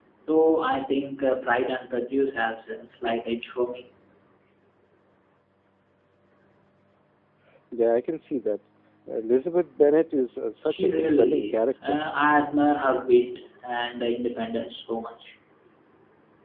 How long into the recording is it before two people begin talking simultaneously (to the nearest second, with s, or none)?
11 s